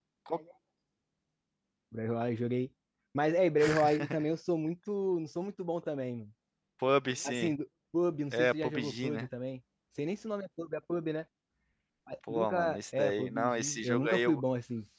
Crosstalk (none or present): present